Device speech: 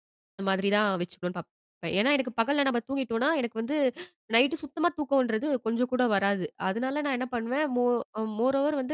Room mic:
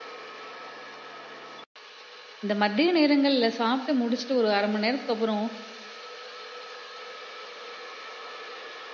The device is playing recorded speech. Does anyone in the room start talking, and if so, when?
2.4 s

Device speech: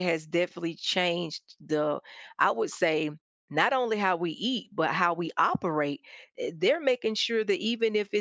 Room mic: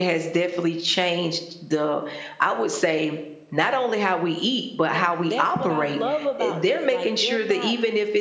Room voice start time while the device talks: 4.9 s

